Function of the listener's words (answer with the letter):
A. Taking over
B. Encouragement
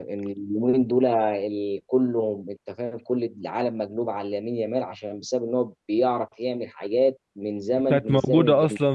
A